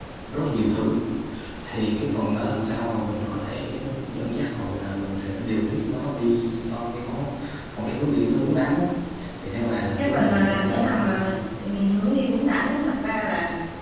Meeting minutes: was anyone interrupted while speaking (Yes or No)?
Yes